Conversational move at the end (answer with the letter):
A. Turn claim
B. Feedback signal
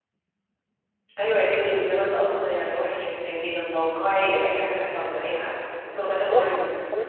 A